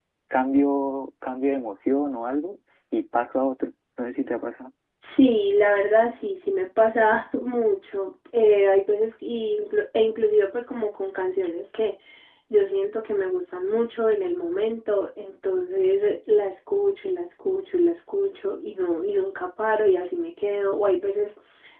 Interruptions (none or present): none